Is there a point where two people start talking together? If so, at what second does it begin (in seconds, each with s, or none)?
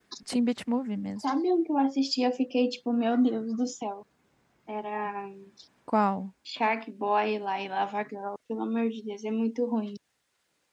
none